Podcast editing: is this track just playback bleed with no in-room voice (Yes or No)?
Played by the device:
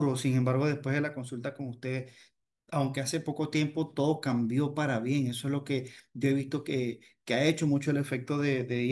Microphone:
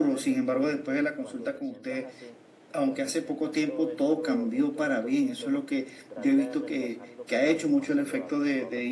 No